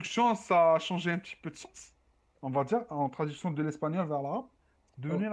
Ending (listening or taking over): listening